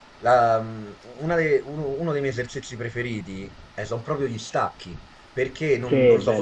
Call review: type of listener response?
listening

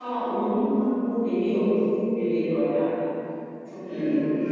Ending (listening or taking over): taking over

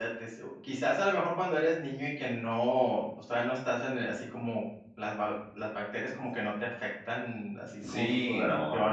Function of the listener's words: taking over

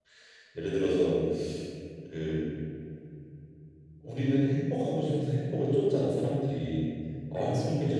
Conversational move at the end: listening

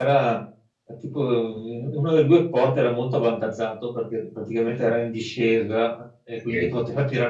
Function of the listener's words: listening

